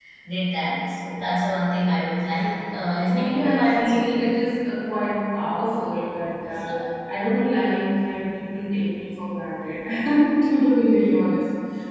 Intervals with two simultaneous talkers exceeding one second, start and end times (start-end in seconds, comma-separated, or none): 3.1-4.3